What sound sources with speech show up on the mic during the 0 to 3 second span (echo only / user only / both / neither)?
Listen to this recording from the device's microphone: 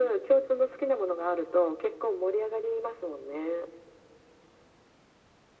echo only